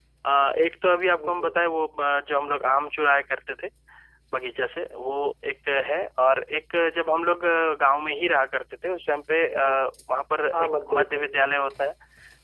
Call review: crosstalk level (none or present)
present